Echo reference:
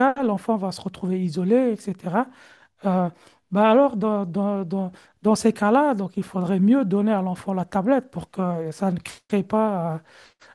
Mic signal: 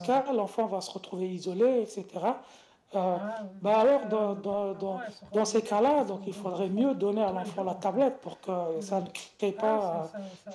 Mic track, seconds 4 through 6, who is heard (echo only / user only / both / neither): both